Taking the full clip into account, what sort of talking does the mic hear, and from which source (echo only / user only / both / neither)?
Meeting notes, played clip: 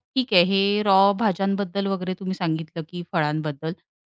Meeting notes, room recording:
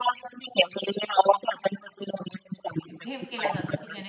both